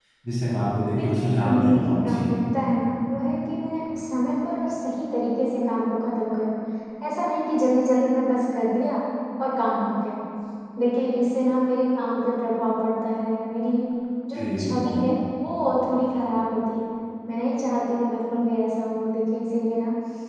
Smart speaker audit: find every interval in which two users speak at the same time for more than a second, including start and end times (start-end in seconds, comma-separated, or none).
1.0-2.2